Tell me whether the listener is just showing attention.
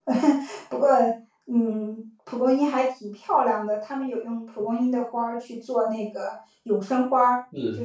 Yes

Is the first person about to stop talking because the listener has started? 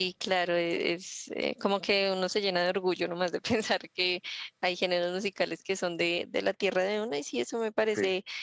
No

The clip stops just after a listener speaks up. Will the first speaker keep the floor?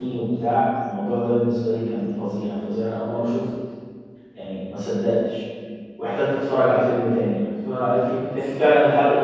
Yes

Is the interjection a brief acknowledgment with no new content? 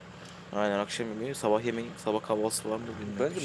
No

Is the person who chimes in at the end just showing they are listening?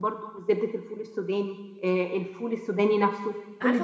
No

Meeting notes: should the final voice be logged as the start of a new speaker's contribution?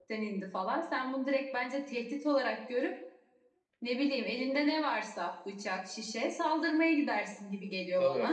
Yes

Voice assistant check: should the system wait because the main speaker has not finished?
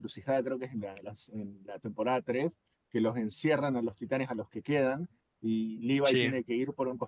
Yes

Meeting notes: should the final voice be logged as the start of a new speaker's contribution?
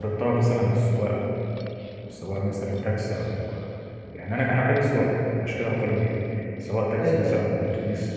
No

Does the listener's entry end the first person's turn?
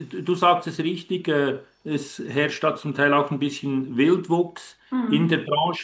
No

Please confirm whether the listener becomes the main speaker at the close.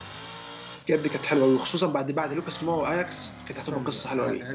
Yes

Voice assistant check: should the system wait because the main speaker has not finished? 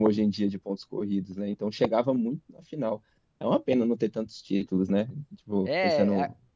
No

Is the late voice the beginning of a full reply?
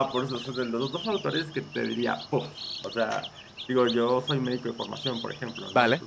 No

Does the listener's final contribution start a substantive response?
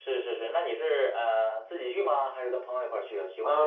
Yes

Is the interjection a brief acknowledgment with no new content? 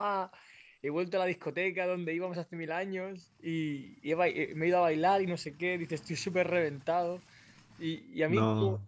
Yes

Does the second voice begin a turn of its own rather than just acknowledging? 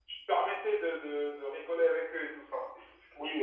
Yes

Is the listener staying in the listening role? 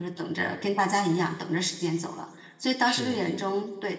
Yes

